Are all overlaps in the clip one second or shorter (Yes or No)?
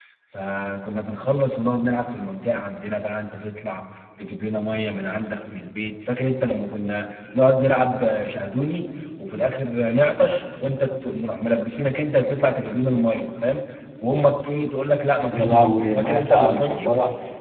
No